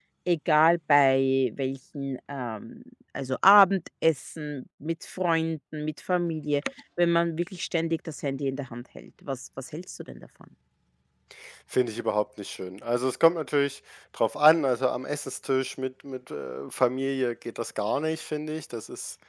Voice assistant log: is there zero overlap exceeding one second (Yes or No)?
Yes